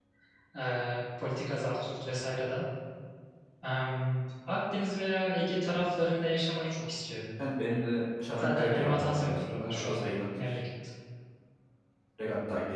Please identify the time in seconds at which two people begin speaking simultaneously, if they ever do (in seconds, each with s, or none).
8.4 s